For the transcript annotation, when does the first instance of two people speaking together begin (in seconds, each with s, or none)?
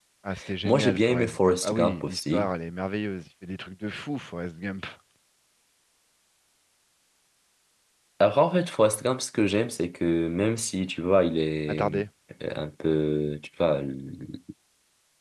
0.6 s